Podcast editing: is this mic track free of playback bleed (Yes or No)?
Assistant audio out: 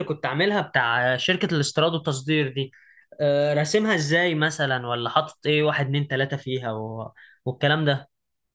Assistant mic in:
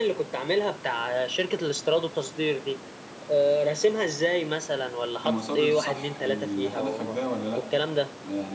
No